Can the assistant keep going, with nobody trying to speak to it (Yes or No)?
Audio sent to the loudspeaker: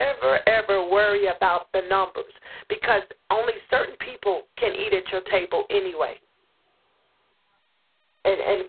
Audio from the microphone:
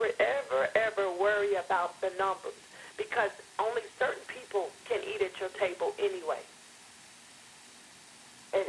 Yes